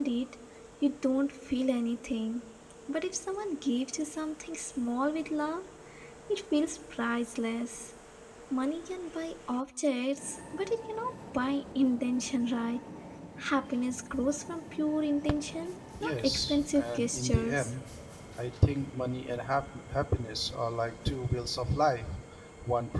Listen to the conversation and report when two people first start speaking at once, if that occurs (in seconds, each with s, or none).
15.9 s